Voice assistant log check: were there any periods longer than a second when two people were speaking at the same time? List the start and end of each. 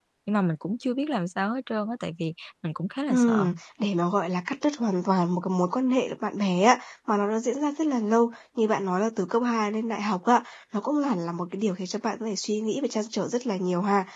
none

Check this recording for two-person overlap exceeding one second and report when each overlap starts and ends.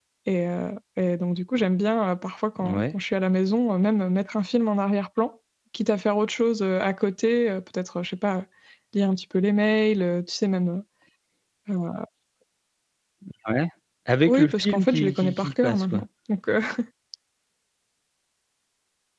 14.3-16.0

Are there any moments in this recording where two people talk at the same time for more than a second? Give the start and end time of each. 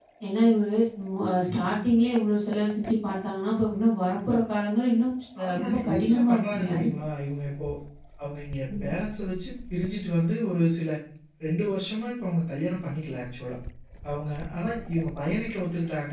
5.4-6.9

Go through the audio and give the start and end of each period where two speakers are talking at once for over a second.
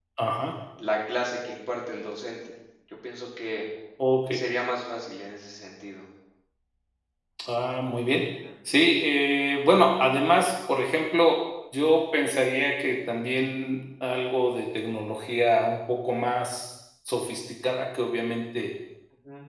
none

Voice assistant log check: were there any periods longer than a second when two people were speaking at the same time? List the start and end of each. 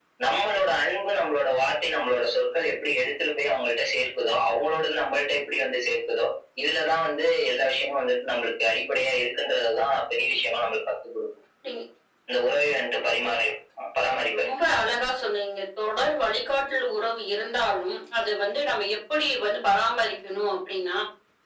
none

